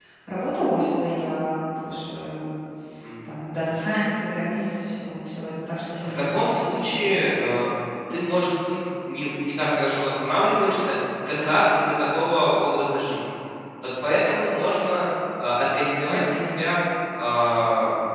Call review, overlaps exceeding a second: present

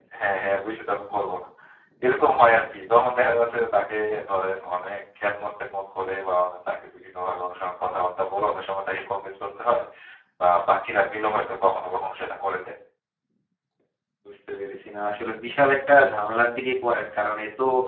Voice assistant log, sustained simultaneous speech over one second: none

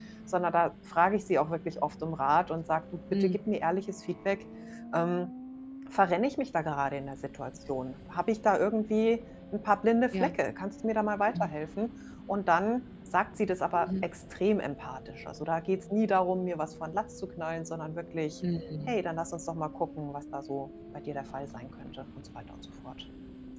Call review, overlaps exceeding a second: none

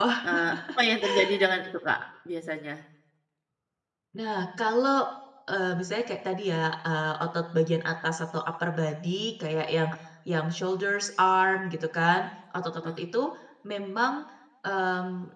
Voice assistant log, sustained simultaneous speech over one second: none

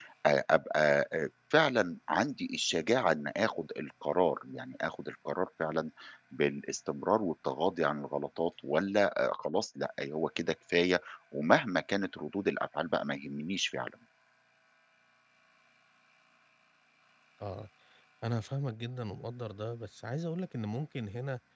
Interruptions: none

